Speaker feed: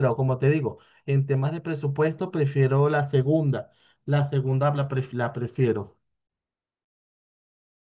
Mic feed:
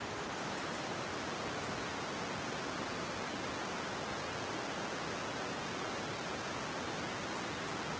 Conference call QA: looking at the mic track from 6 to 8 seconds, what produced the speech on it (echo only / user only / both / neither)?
neither